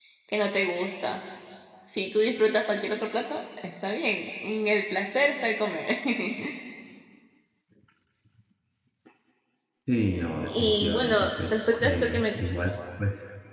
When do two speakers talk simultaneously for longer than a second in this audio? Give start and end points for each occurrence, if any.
10.5-12.2

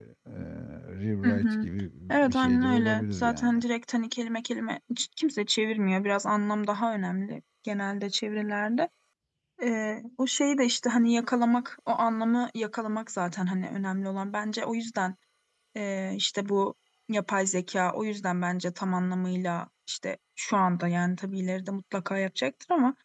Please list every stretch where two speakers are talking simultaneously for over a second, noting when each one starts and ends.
2.3-3.6

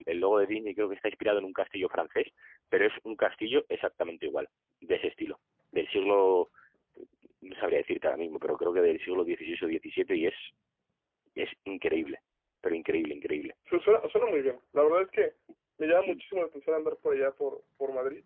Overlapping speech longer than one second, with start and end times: none

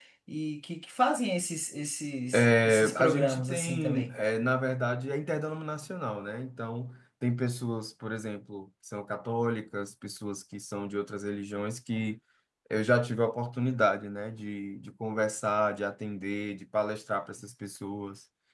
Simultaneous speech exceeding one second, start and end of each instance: 2.3-4.2

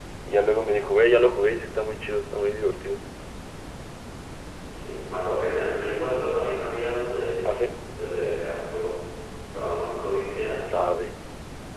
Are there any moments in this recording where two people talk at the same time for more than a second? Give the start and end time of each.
none

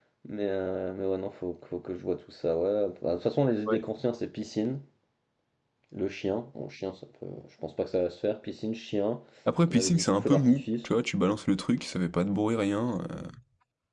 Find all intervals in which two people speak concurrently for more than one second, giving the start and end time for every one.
9.7-10.9

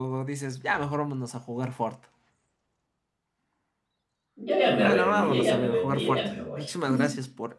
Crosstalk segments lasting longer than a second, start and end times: 4.8-6.6

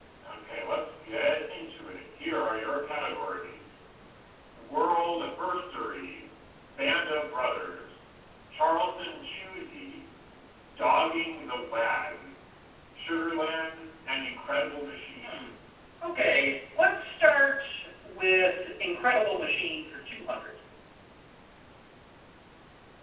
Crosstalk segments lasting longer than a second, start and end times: none

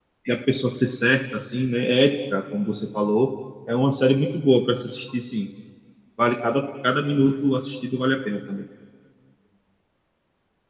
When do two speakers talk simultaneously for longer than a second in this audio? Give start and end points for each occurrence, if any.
none

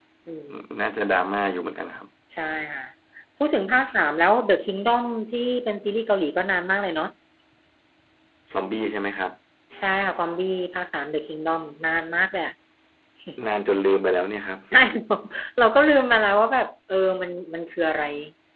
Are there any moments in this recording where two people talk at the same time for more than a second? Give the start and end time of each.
none

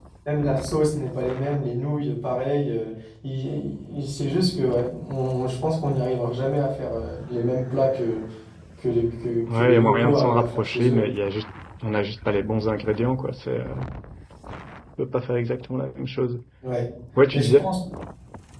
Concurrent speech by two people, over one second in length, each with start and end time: 9.5-11.0

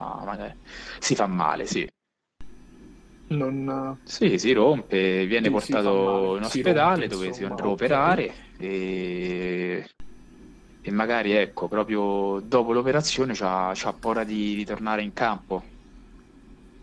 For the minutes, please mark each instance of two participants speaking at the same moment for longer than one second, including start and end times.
5.4-8.2

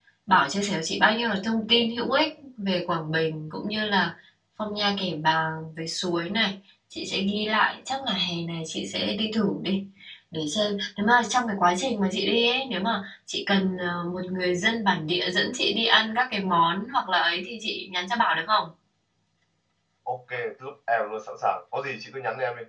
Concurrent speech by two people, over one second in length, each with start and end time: none

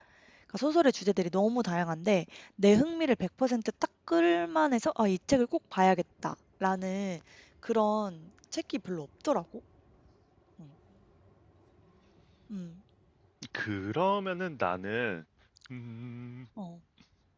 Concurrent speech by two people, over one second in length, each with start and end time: none

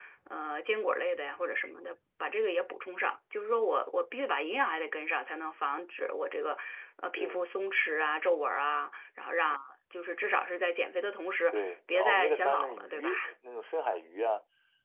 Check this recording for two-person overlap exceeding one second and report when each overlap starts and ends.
11.5-13.3

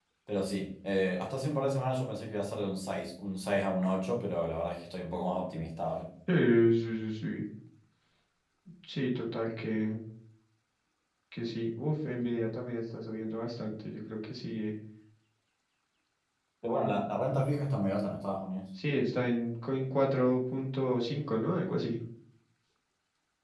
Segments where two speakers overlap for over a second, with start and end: none

